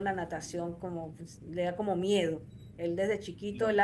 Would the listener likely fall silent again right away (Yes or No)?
Yes